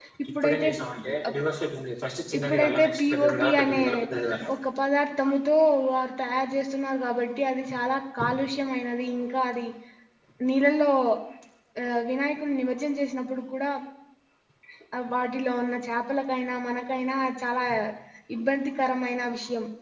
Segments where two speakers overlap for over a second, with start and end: 2.4-3.8

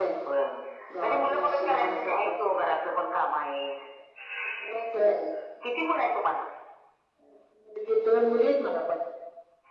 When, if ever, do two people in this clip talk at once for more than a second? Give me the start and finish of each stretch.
1.0-2.4

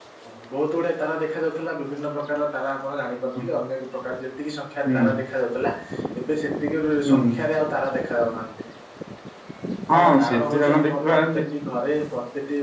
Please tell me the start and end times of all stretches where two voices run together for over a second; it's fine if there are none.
9.9-11.2

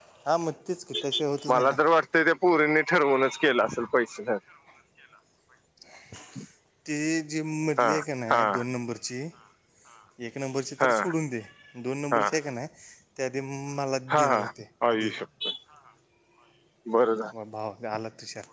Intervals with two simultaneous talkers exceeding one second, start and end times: none

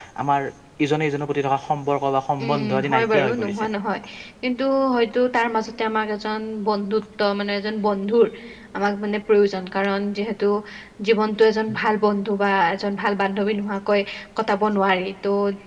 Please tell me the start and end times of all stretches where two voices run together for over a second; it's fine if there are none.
2.4-3.7

